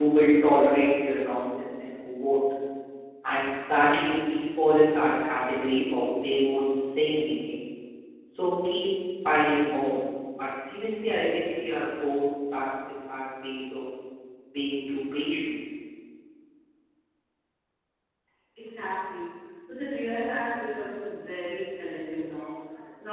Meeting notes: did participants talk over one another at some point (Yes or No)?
No